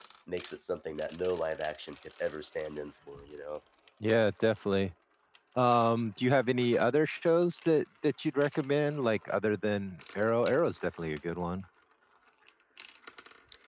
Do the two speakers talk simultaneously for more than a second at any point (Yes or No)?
No